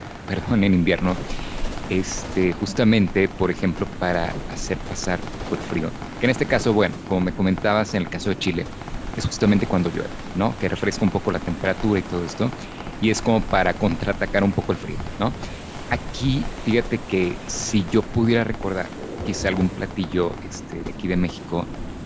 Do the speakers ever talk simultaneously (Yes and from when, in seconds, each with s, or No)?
No